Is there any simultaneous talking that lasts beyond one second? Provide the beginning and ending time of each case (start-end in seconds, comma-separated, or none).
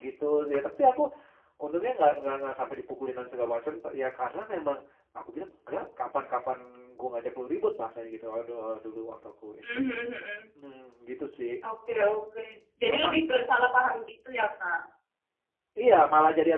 none